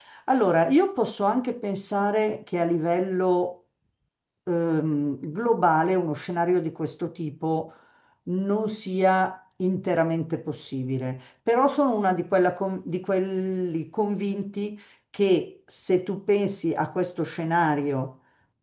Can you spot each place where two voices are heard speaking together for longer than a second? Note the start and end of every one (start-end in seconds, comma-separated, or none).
none